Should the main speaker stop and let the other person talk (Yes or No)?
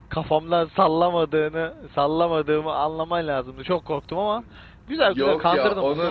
Yes